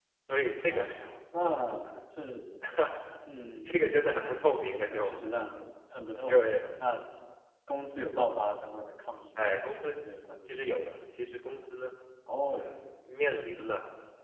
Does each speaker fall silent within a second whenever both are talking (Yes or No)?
Yes